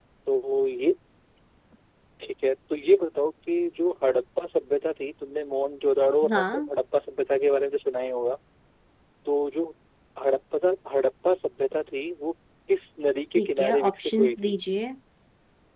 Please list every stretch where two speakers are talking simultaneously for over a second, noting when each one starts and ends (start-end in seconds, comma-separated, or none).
13.4-14.6